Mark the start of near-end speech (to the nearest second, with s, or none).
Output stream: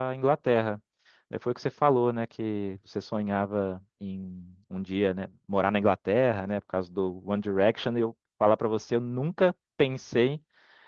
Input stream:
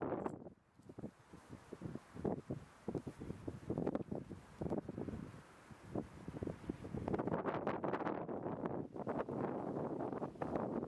none